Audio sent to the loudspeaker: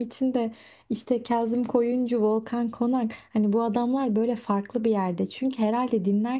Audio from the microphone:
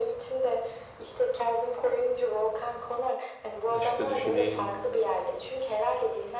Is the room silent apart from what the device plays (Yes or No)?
No